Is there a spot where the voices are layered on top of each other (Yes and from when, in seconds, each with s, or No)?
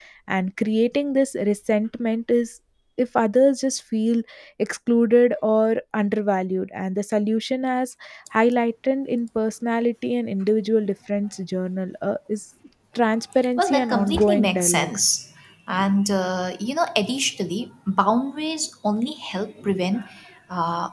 Yes, from 13.6 s